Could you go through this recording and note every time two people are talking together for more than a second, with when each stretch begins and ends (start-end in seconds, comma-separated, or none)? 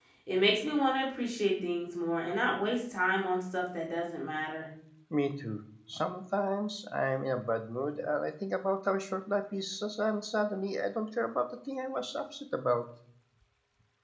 none